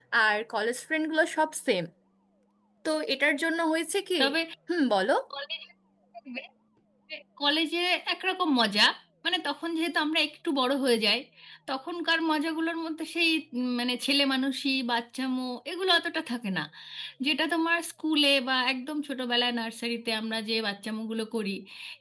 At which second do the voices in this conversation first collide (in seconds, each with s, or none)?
none